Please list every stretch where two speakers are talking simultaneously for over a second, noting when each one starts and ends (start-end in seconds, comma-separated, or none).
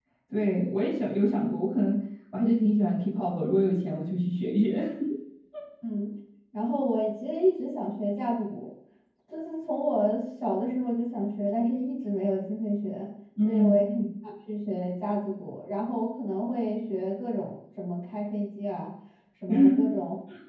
none